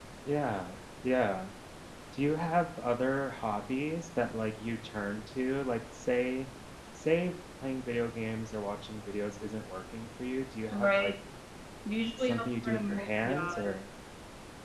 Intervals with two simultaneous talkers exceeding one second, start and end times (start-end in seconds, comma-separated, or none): 12.2-13.8